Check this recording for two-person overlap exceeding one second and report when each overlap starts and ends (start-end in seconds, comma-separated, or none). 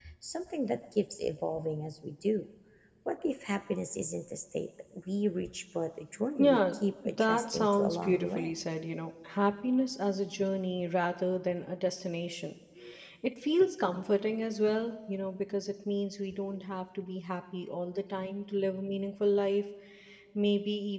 6.4-8.5